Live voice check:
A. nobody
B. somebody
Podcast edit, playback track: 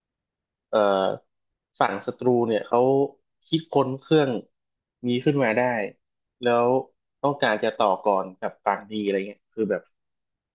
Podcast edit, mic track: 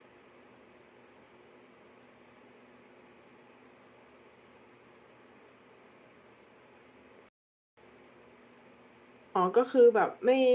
B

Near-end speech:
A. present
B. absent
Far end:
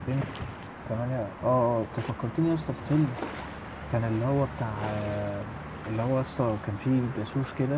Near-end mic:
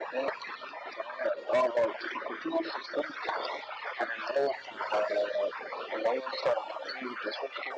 B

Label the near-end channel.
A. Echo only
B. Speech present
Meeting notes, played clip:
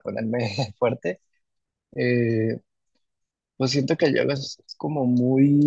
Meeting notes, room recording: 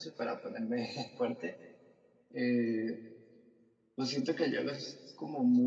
A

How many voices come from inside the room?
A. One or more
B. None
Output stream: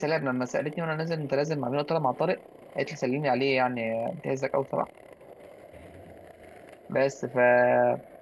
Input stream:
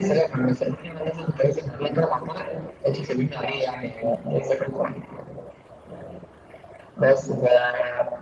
B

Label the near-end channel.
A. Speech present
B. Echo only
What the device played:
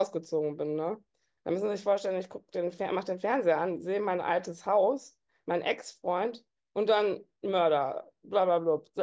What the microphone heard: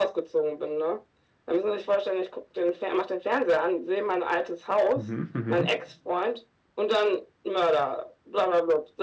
A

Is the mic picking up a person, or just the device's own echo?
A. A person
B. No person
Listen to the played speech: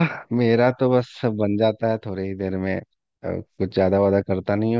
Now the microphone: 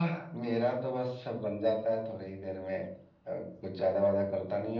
B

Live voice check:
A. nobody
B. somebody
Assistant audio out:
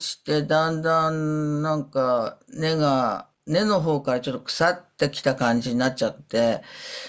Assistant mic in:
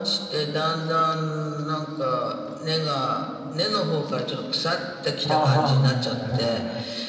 B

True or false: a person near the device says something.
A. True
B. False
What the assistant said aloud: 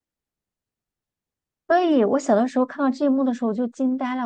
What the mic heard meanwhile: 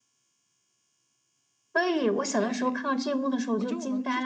A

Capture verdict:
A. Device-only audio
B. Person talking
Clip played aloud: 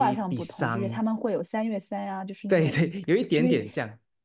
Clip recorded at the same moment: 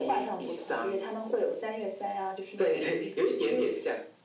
A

